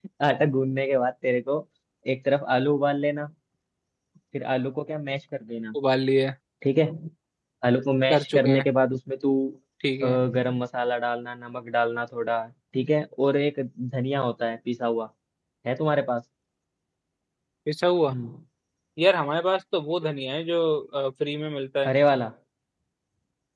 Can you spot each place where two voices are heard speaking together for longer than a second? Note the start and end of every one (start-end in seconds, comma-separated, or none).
none